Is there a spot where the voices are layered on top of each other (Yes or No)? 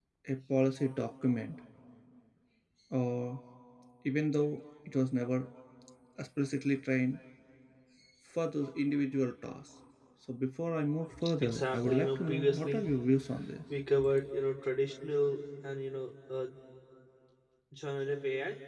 Yes